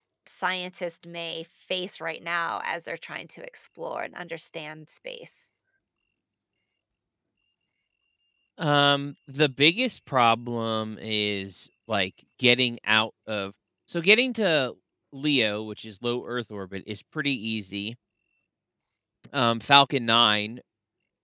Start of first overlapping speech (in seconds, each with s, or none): none